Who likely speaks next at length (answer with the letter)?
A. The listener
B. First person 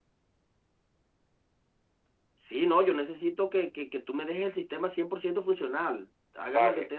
B